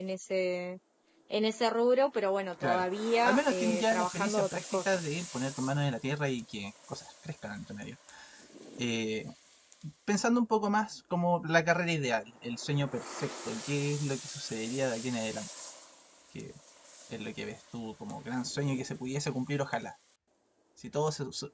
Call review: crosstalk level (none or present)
present